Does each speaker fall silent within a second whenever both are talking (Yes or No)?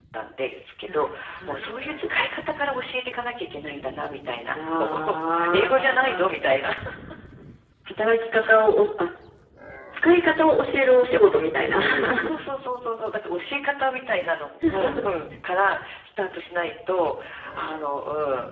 No